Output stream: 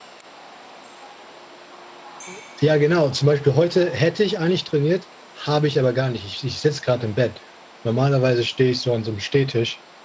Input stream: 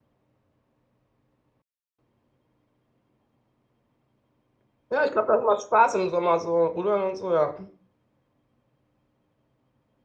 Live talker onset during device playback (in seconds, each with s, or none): 4.9 s